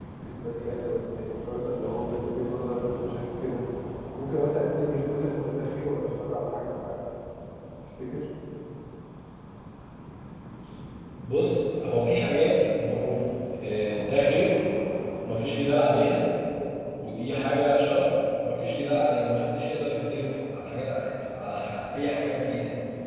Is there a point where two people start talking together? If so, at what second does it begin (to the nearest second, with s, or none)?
none